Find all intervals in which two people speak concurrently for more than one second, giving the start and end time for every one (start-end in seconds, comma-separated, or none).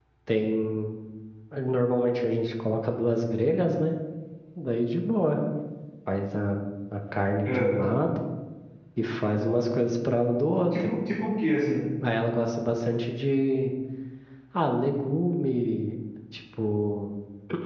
none